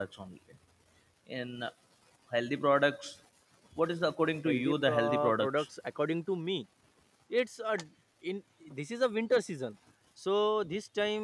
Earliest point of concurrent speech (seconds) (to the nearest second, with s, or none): 4 s